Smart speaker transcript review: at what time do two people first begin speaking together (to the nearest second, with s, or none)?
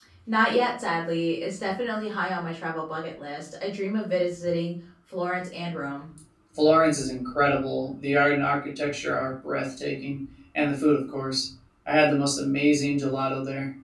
none